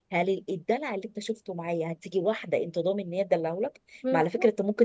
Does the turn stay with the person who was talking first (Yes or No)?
Yes